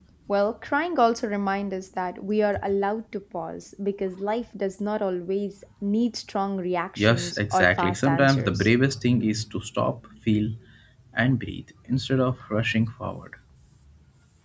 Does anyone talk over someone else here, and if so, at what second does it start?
7 s

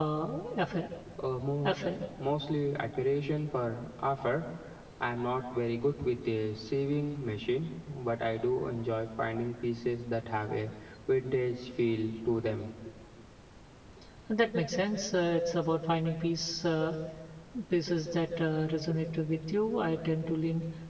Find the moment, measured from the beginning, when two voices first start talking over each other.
none

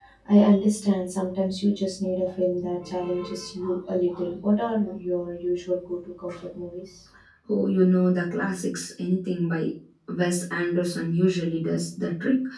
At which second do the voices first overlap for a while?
none

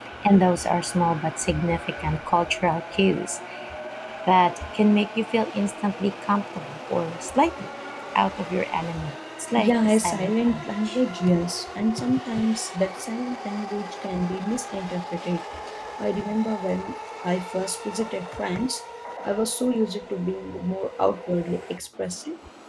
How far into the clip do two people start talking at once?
10 s

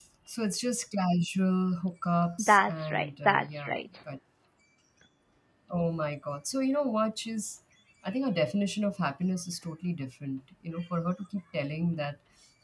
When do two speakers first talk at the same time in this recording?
2 s

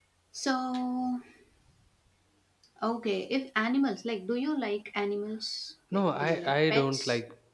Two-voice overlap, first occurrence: 6 s

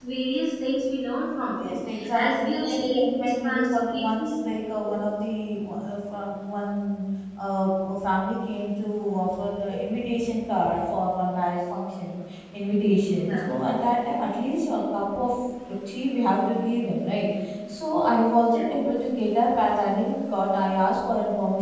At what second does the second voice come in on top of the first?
1 s

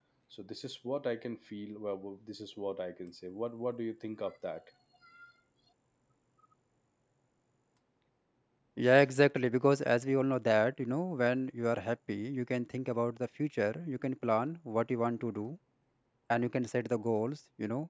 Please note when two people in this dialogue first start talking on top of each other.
none

